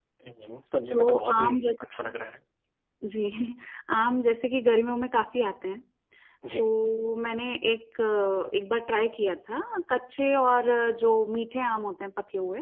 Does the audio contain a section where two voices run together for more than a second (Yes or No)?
Yes